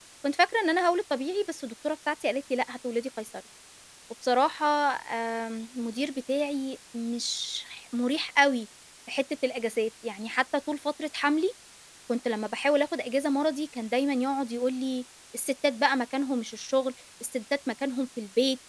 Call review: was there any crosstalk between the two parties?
No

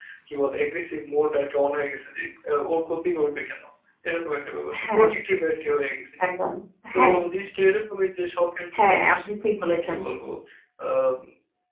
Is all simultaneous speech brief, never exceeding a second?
Yes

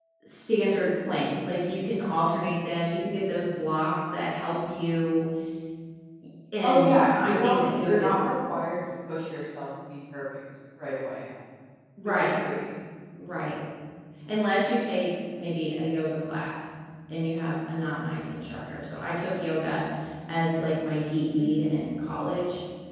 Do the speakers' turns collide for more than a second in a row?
Yes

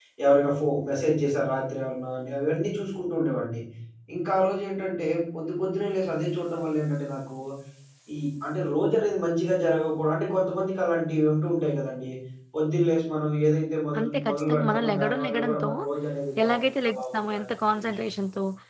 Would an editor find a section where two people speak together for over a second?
Yes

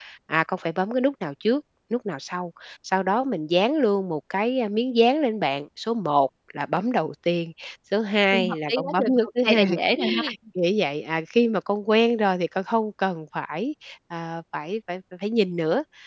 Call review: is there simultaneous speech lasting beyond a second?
Yes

